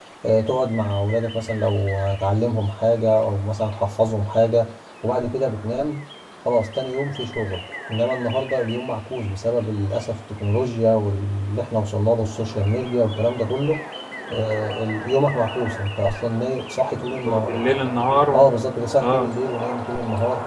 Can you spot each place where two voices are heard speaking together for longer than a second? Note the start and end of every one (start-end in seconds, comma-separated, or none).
none